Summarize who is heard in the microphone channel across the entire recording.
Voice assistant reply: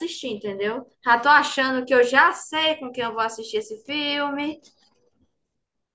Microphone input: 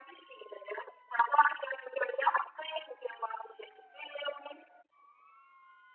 echo only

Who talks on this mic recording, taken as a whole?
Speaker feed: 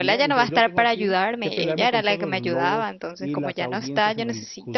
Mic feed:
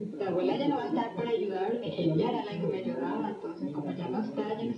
echo only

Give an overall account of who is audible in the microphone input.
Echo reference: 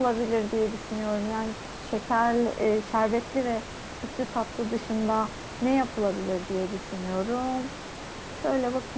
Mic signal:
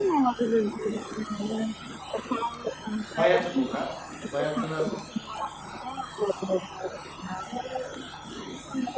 both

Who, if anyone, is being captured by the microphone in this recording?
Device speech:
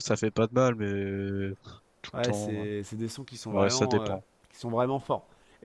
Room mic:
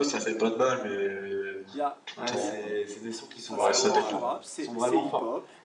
both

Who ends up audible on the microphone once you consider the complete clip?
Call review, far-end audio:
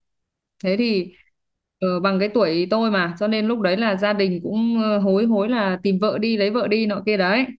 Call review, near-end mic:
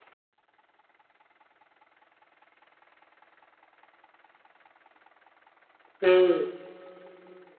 user only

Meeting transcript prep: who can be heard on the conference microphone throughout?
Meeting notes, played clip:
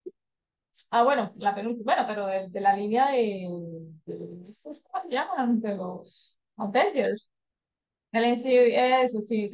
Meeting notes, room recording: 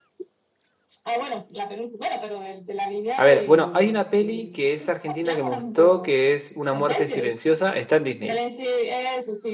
both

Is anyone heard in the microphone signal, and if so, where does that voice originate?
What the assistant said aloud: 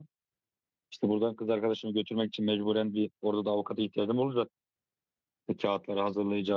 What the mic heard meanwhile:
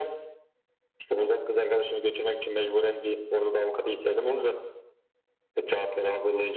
echo only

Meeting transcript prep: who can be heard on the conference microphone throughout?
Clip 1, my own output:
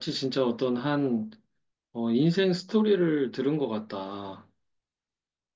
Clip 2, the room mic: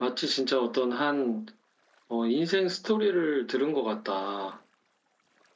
echo only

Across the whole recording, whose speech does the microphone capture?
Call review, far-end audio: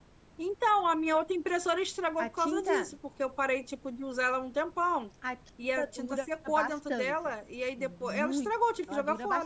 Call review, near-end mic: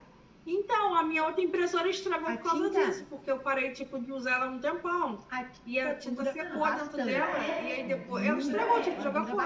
both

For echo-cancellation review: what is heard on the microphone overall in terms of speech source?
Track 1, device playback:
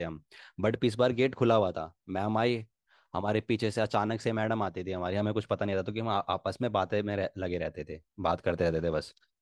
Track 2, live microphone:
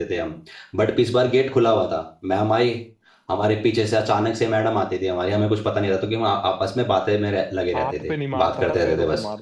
both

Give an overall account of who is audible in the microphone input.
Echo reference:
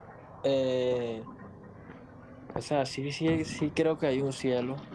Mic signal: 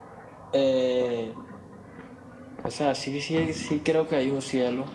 echo only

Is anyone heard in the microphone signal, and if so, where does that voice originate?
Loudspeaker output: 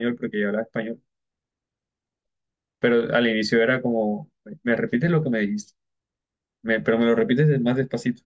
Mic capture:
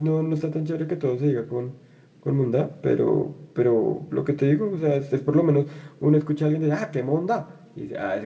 user only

